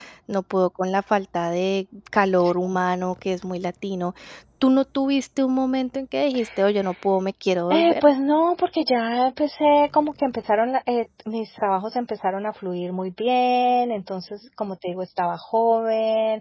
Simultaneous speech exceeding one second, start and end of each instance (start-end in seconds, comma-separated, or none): none